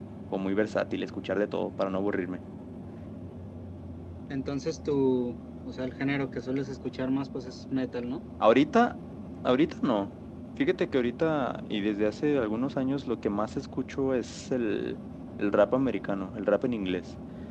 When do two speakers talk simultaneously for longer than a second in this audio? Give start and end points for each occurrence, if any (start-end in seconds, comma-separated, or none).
none